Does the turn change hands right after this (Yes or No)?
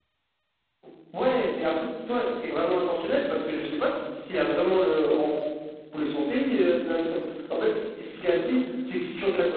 No